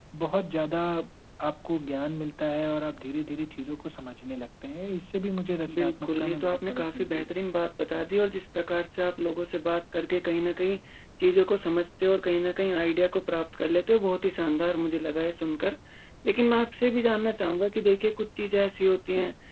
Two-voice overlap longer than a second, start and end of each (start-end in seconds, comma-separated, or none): 5.7-7.2